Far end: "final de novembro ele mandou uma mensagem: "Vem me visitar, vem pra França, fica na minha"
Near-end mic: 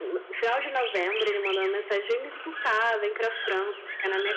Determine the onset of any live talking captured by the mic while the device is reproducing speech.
none

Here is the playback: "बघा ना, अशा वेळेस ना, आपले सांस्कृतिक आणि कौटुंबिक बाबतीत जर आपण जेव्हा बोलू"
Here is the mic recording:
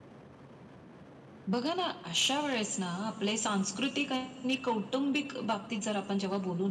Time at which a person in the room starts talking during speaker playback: none

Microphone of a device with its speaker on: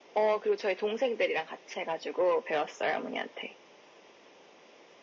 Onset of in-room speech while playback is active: none

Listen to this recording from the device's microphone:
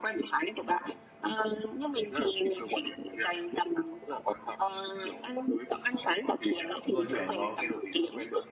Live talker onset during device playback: 6.8 s

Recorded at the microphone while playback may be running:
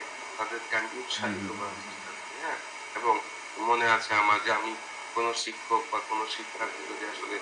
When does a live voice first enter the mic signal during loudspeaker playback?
1.2 s

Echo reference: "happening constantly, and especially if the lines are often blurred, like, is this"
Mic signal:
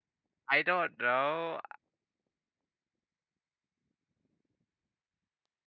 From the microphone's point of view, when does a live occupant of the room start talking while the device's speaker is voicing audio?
0.5 s

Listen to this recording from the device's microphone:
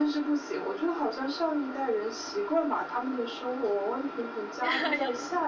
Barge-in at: 4.6 s

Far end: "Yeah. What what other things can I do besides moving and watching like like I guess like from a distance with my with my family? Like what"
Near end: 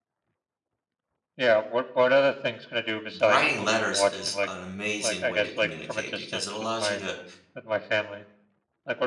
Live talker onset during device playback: 3.2 s

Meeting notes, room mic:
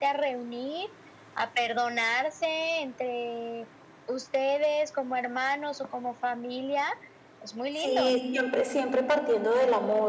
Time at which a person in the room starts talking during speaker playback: 7.7 s

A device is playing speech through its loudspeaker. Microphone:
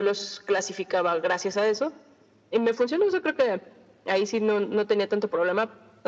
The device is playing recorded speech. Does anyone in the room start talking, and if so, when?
none

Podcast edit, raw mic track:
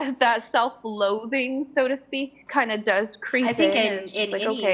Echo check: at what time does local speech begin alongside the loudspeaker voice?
3.4 s

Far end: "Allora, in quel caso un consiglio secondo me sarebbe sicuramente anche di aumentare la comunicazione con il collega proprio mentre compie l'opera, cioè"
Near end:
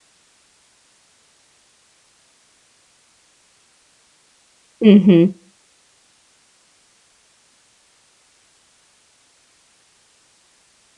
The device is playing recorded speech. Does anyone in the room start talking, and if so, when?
4.9 s

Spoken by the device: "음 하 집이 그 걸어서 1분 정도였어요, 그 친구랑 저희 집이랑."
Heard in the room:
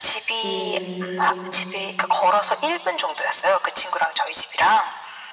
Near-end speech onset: 0.4 s

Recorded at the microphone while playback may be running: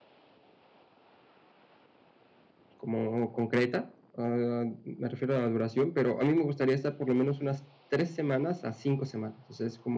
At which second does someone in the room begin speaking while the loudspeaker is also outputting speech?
2.8 s

